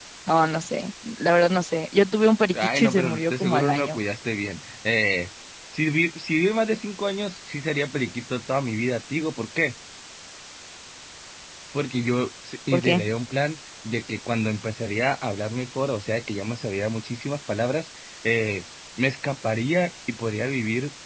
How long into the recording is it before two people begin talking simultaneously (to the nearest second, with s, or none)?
3 s